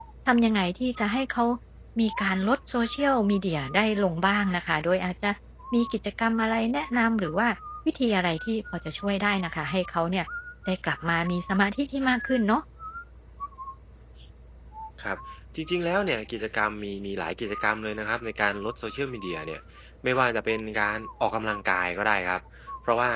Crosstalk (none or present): none